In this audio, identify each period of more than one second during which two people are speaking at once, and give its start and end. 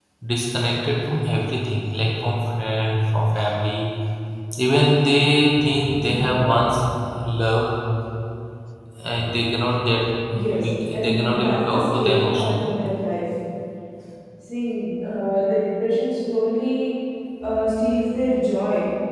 10.6-12.7

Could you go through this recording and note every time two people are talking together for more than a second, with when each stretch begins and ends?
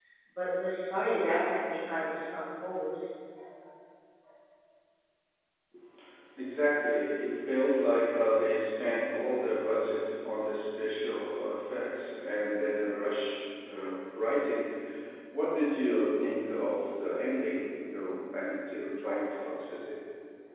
none

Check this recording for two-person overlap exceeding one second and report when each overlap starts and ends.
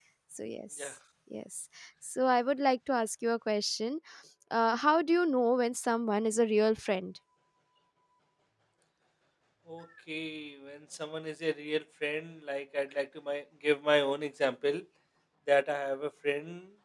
none

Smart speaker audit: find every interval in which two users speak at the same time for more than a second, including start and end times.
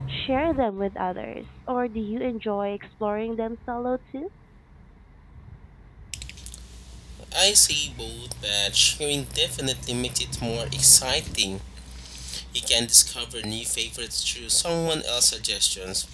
none

